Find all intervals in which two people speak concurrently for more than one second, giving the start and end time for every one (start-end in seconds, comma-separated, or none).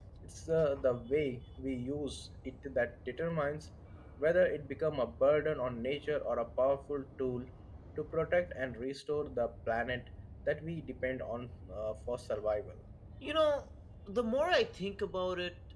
none